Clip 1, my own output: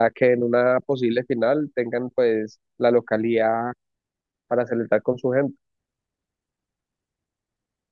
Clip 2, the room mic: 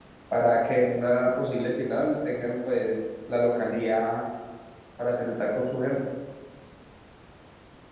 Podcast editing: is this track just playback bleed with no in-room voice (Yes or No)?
Yes